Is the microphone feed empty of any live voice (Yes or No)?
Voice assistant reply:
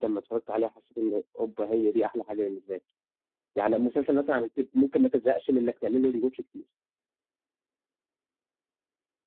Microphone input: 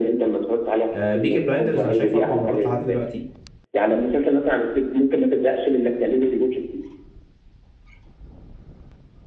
No